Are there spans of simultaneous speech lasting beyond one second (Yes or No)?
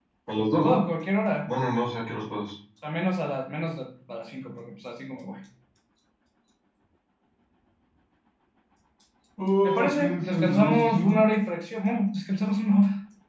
Yes